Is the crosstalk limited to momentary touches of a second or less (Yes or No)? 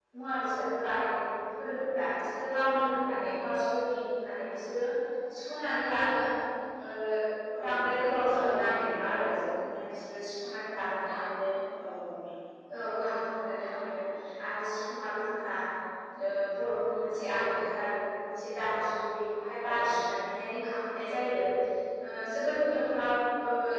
No